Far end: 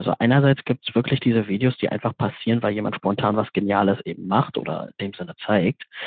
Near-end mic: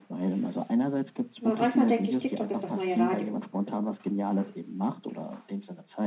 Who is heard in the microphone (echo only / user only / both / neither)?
both